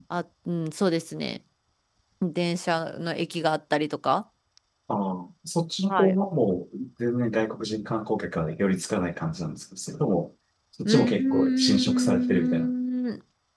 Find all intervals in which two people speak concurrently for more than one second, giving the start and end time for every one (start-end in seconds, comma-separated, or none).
10.8-12.7